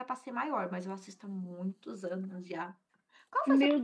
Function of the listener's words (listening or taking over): taking over